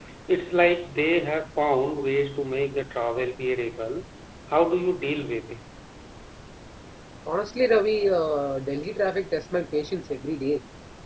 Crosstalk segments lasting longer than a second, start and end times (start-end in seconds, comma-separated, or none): none